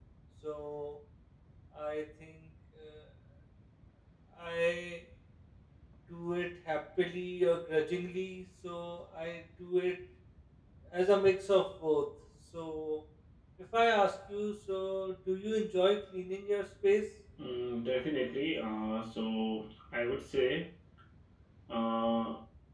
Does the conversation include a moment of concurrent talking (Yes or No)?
No